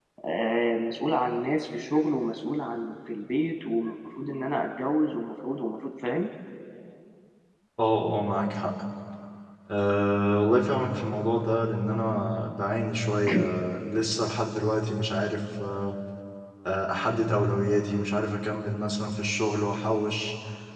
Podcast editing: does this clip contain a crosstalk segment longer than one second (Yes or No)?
No